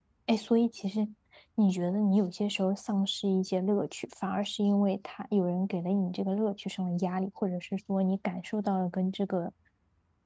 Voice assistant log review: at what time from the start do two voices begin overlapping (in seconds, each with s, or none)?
none